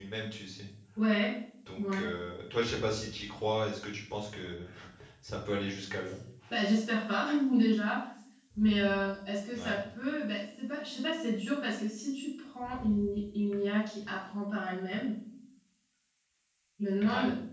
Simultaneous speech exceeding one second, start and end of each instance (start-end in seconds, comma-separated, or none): none